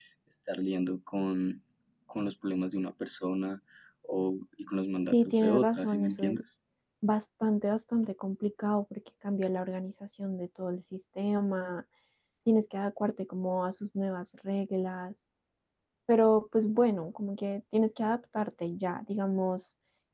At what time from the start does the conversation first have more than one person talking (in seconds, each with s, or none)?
5.1 s